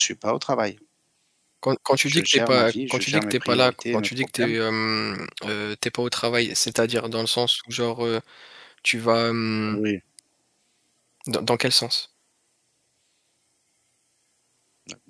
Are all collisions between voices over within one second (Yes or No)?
No